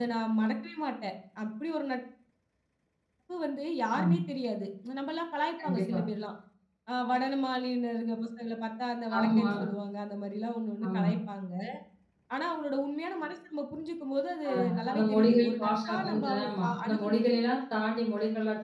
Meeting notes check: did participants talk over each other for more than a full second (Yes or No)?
Yes